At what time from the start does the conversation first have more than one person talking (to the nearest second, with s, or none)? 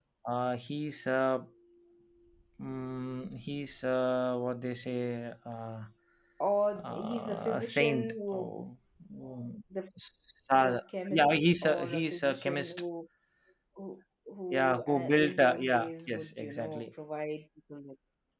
7 s